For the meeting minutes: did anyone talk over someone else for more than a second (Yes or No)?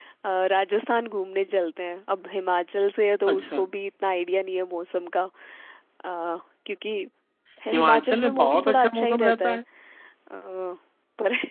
Yes